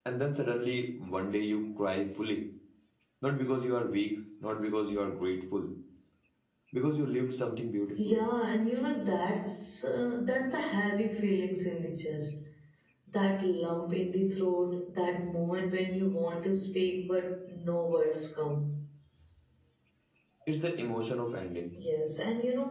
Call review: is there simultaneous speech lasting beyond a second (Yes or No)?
No